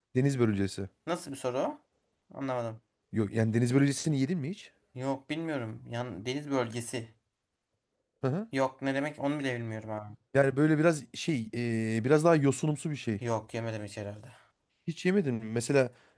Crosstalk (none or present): none